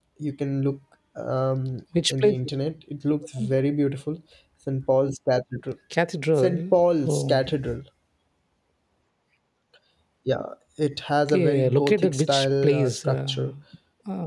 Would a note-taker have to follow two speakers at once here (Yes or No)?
Yes